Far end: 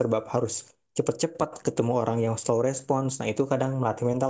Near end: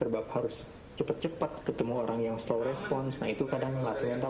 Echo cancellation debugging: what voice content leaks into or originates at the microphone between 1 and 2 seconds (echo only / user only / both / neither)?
echo only